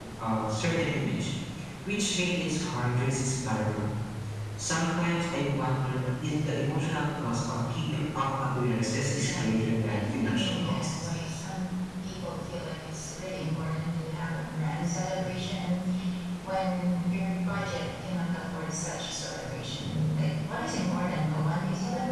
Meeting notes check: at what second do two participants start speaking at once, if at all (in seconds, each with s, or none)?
9.2 s